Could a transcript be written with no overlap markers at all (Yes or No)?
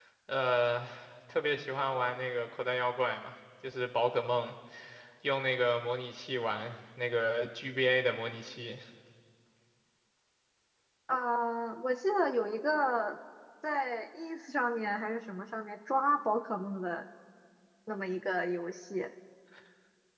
Yes